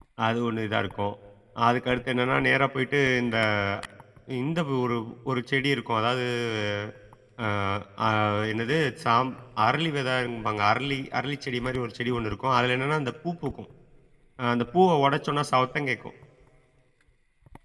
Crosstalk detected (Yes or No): No